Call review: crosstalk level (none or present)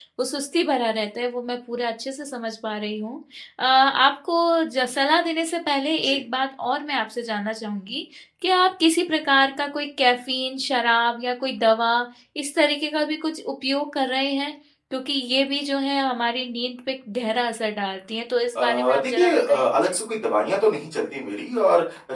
present